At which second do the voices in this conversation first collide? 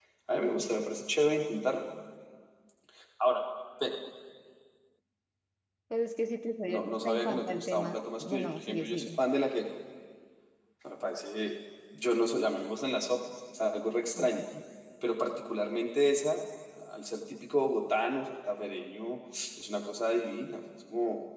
6.7 s

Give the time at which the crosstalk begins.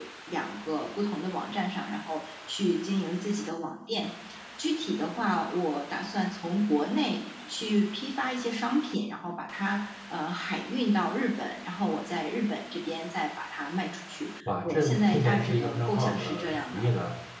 14.5 s

